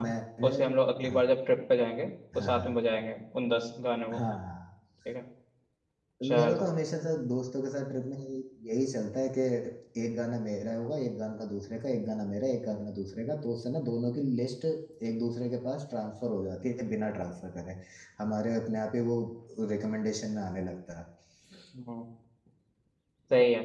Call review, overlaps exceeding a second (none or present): none